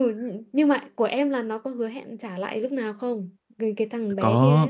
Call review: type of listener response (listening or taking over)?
taking over